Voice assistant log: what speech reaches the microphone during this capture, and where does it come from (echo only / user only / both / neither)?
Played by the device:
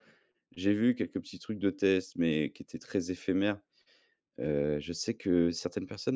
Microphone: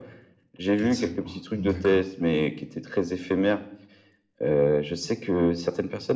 both